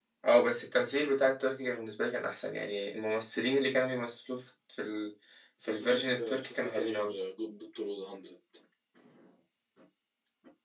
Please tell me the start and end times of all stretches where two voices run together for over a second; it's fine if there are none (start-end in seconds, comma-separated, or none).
5.7-7.2